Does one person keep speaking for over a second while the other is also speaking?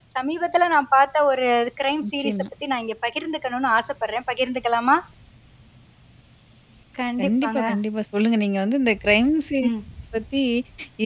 No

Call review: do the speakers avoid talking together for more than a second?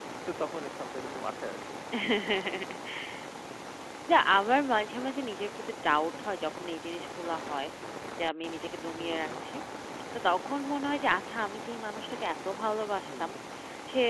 Yes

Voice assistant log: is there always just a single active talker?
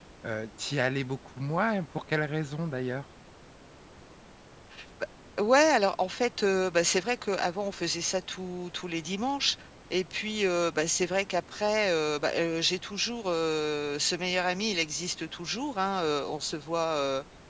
Yes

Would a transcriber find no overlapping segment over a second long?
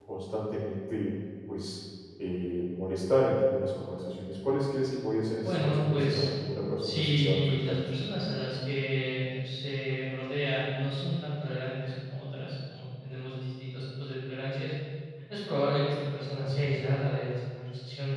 No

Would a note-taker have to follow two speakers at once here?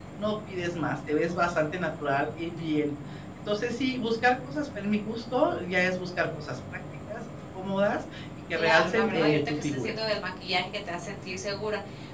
Yes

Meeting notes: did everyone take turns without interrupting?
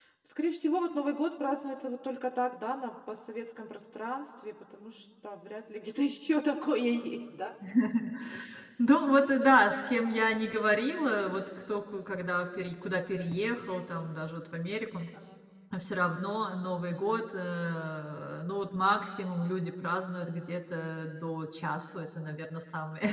Yes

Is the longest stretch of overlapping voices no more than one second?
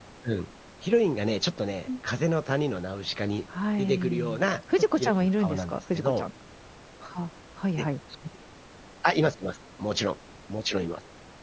No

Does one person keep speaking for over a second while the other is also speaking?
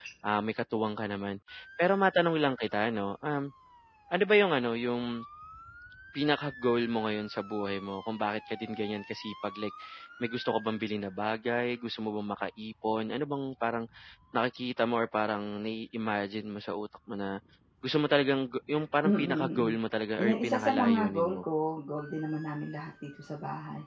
Yes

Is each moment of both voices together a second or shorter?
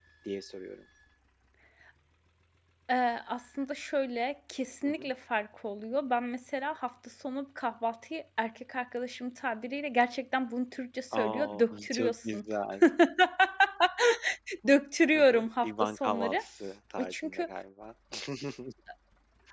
No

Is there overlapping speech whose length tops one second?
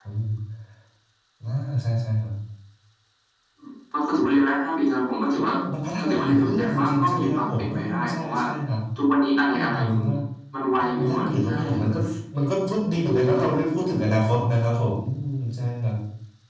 Yes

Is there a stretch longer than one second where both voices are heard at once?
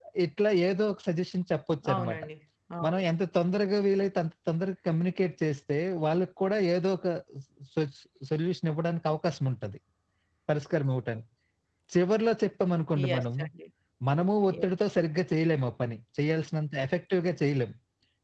No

